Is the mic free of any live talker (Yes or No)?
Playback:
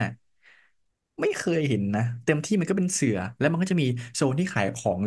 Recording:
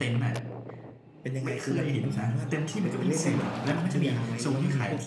No